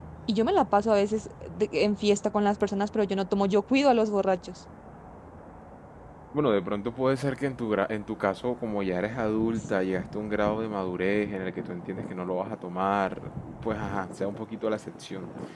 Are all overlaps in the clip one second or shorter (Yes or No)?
Yes